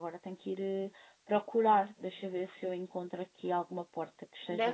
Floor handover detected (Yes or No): Yes